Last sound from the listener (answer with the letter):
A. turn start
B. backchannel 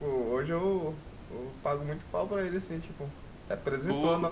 B